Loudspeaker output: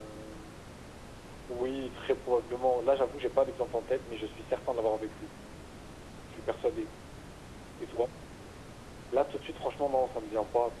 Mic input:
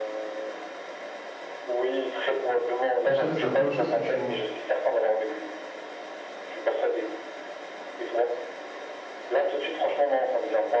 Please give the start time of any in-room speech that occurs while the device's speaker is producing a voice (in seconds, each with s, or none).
3.0 s